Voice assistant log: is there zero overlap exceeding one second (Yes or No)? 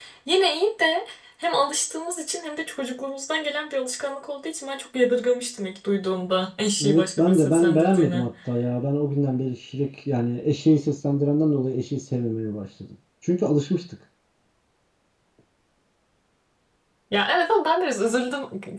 No